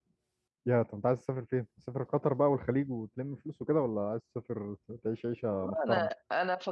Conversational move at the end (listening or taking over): taking over